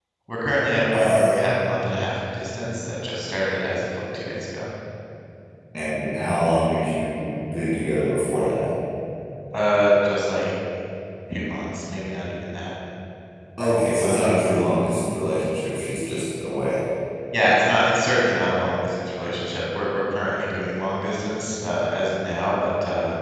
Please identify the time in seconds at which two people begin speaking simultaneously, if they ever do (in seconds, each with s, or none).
0.9 s